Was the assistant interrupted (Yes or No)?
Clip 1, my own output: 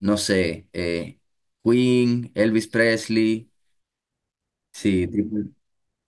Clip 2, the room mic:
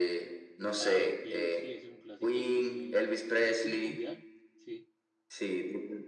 Yes